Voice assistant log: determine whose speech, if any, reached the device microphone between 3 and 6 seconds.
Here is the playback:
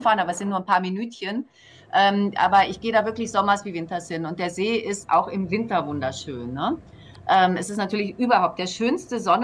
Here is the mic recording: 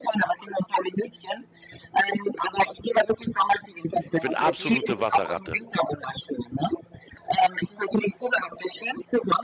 both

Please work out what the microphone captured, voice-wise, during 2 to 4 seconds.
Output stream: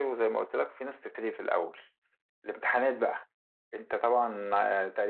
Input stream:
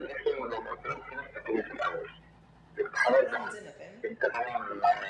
both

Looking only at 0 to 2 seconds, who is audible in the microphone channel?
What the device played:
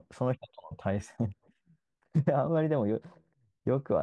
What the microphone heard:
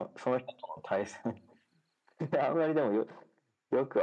echo only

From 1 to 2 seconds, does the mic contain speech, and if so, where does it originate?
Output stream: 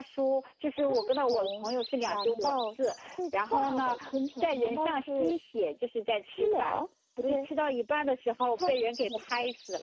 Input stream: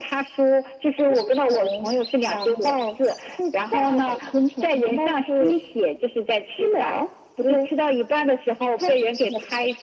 echo only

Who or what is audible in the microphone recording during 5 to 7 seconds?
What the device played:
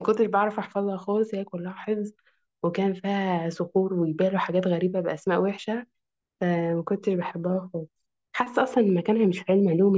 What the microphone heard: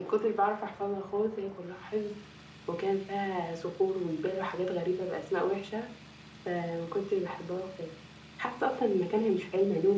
echo only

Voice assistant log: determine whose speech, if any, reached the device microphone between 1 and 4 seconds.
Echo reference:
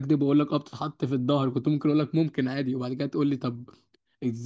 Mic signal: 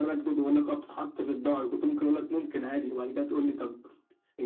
echo only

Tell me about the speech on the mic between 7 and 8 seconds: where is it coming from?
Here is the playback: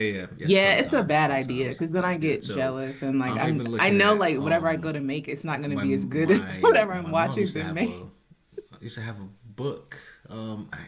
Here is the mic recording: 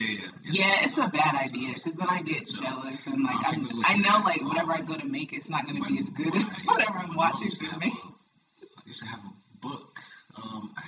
echo only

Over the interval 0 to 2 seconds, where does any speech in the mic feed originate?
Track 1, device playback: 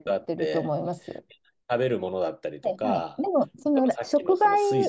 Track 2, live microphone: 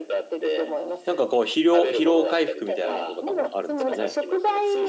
both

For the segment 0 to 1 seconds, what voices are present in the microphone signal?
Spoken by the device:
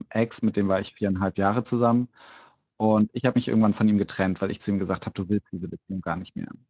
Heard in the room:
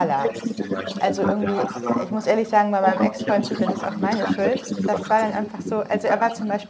both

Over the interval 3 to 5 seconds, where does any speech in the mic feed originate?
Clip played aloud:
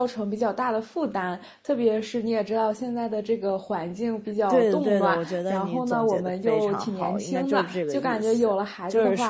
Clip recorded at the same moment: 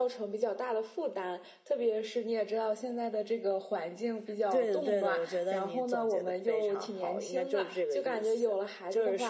echo only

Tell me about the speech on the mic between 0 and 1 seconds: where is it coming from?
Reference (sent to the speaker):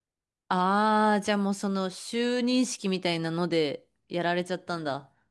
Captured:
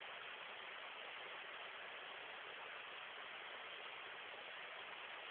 neither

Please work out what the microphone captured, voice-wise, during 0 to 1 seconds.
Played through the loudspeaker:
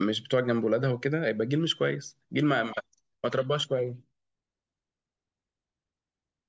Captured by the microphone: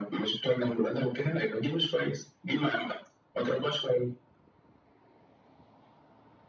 echo only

